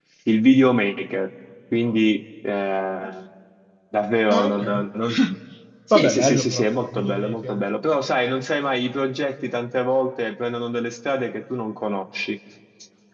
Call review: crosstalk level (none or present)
present